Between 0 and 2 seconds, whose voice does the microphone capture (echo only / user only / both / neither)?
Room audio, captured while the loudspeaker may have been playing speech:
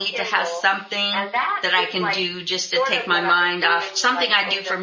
both